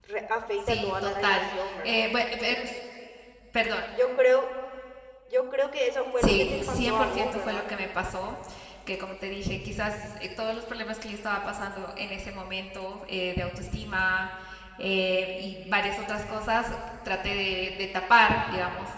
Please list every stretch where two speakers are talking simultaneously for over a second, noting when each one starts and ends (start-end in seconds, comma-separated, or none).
0.7-2.0, 6.2-7.6